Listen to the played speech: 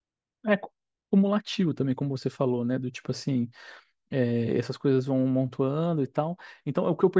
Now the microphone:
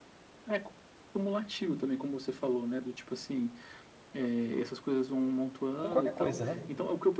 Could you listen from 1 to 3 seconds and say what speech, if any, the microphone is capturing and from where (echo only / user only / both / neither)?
echo only